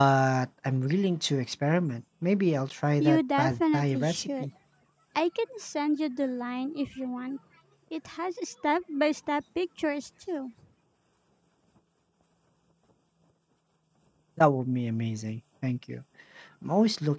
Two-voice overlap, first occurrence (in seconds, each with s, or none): 3.0 s